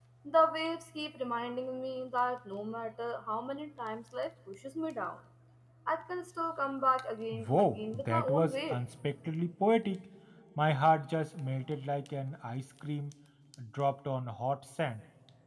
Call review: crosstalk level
present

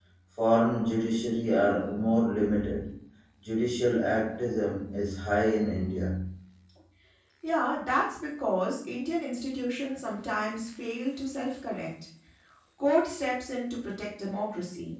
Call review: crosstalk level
none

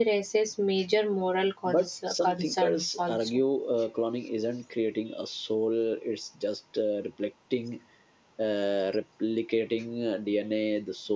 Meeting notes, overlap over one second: present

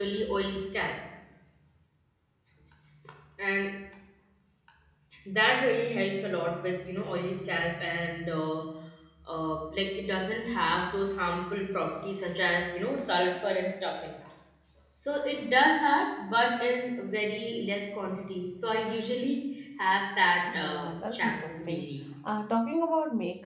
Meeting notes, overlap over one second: present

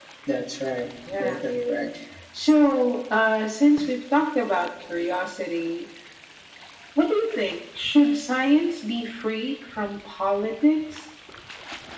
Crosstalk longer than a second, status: none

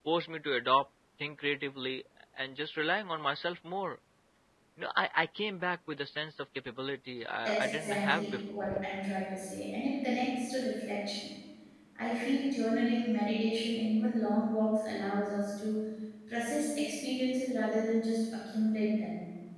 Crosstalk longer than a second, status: present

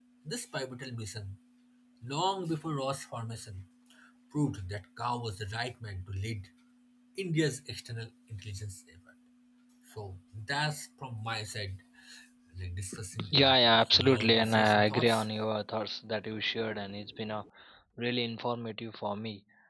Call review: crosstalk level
present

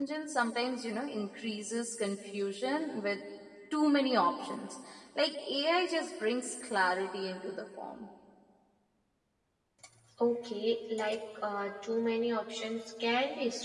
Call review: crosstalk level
none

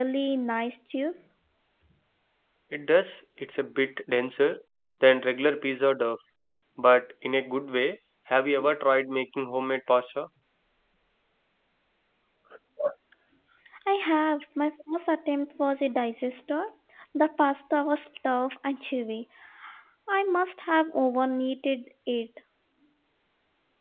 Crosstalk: none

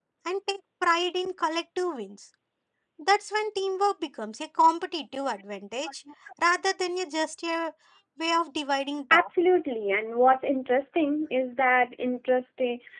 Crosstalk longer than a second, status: none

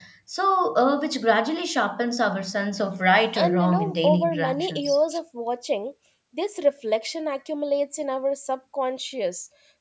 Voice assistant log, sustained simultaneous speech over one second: present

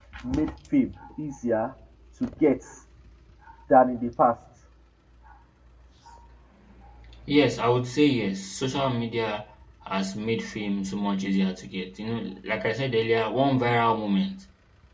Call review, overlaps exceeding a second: none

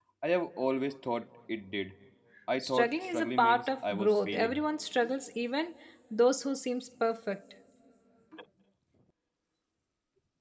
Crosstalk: present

